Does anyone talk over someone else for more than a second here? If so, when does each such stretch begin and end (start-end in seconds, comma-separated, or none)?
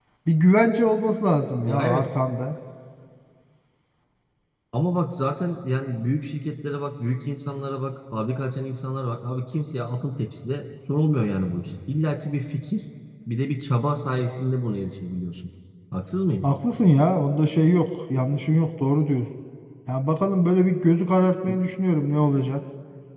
none